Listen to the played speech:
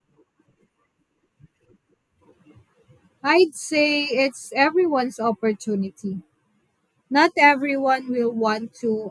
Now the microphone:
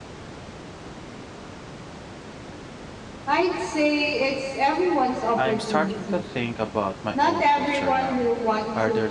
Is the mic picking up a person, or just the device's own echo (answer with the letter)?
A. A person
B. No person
A